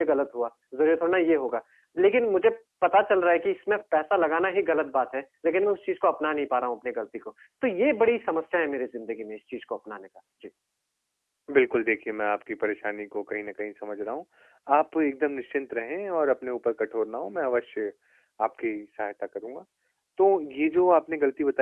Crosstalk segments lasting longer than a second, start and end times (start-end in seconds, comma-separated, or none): none